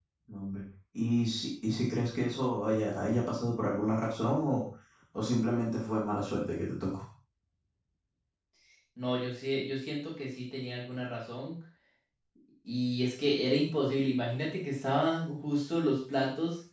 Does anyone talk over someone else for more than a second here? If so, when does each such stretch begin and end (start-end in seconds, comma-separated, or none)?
none